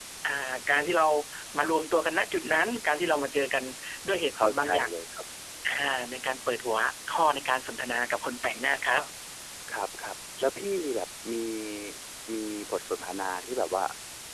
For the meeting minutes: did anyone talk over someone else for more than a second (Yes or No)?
No